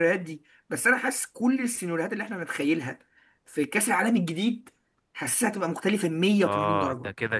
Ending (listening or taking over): taking over